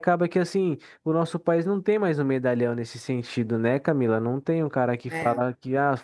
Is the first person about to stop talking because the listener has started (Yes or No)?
No